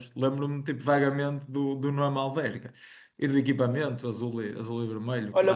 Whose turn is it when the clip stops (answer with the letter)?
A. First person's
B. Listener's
B